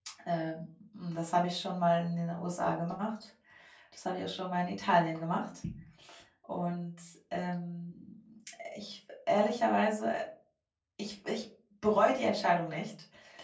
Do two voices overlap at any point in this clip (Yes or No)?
No